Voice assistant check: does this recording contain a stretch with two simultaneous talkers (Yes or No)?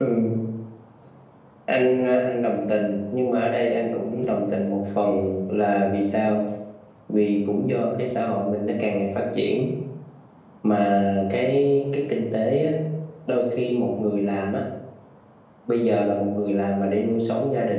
No